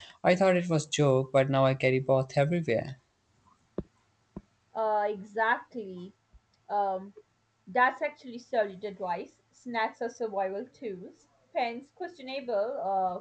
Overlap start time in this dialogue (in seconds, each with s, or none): none